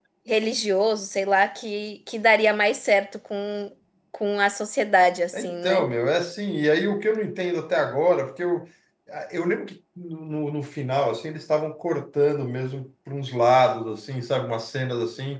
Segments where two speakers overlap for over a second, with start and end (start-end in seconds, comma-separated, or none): none